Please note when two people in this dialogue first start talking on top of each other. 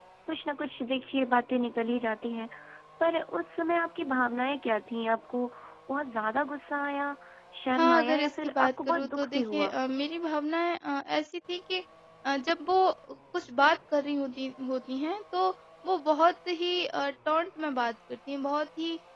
7.8 s

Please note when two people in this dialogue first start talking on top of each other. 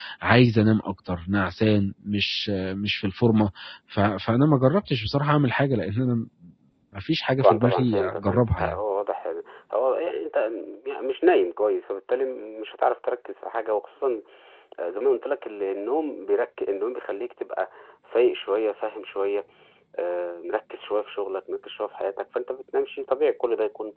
7.4 s

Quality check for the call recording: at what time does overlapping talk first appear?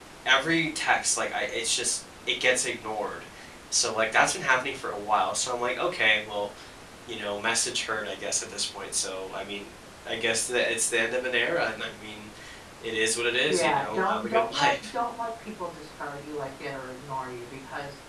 13.5 s

